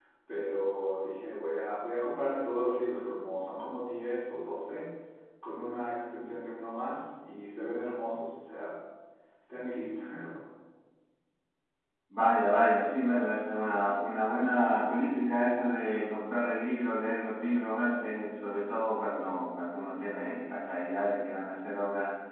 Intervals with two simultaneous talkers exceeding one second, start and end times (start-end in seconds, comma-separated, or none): none